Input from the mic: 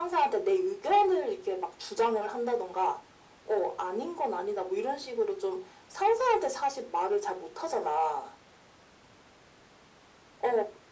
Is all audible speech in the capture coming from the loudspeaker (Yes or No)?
Yes